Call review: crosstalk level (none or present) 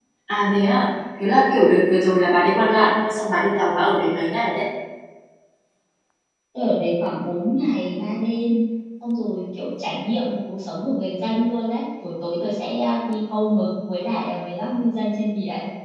none